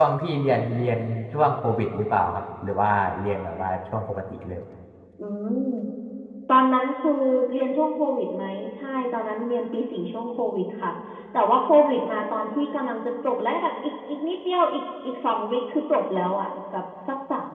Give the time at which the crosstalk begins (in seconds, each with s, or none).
none